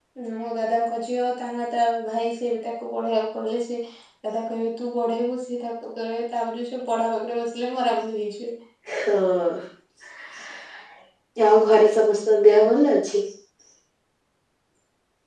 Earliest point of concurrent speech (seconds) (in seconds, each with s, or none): none